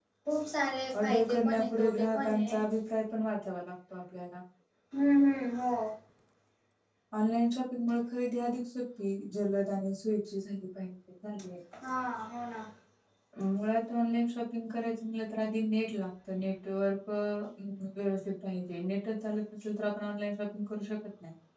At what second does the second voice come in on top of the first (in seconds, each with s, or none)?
1.0 s